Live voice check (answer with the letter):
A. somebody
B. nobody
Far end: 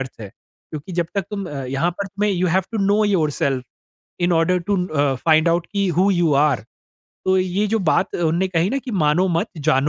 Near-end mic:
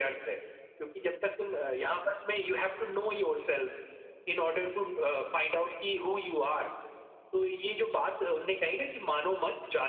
B